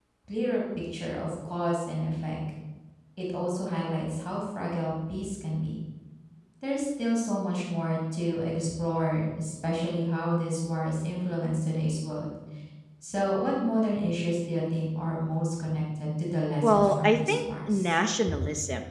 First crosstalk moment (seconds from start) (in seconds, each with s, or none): 16.6 s